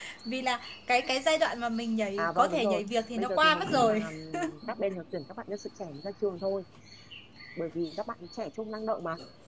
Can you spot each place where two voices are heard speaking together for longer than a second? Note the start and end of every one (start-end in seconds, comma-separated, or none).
2.2-4.0